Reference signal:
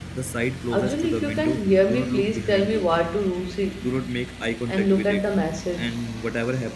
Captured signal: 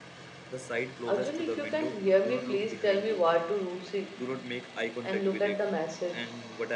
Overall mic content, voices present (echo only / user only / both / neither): echo only